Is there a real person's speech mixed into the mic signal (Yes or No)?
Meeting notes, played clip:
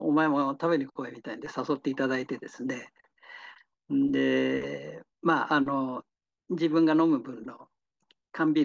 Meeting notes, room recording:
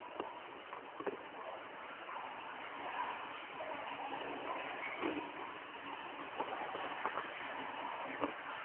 No